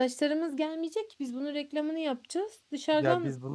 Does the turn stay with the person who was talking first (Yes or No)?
No